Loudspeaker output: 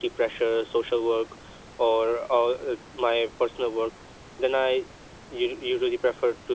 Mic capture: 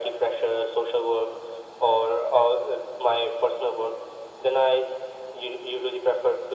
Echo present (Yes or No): Yes